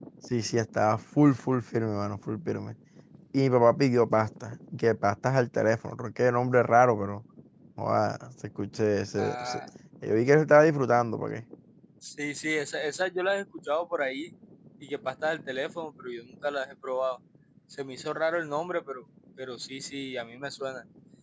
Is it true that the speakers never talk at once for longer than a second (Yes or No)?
Yes